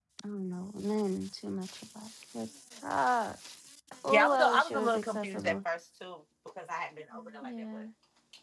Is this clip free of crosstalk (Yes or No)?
No